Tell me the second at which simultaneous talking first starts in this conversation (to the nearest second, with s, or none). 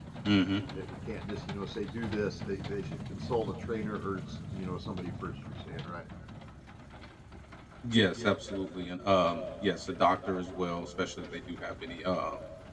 none